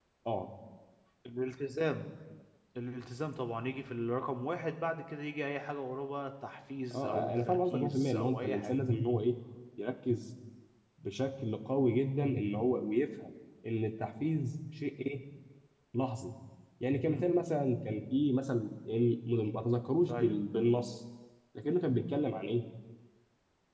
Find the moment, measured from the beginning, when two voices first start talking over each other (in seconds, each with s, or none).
6.9 s